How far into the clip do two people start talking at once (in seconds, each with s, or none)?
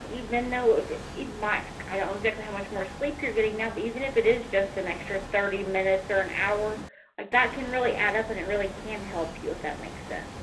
none